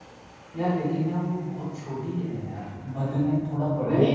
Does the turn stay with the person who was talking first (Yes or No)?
No